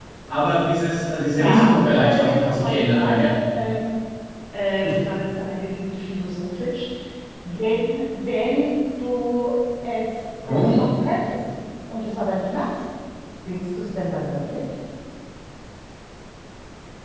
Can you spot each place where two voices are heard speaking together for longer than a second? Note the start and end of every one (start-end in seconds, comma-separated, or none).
1.4-3.3